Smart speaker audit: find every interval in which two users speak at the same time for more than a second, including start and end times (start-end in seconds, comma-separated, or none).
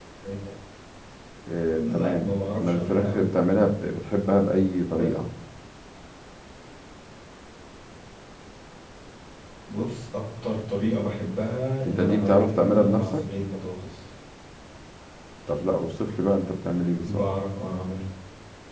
1.7-3.3, 11.8-13.2